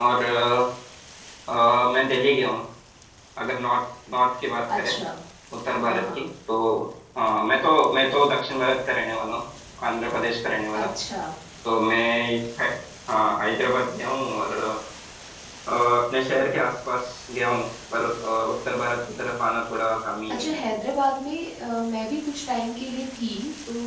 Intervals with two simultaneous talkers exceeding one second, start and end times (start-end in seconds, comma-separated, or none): none